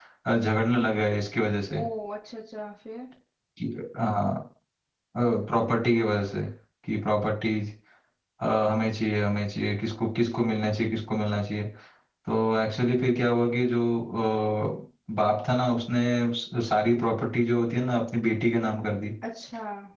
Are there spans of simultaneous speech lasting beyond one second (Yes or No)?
No